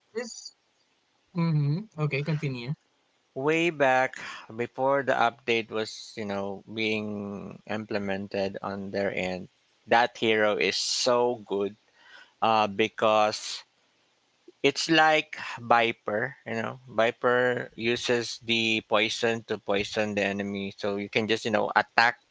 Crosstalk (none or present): none